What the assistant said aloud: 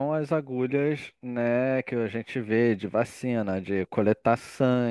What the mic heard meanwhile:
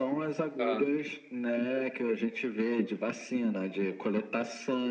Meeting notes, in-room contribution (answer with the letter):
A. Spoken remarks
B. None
A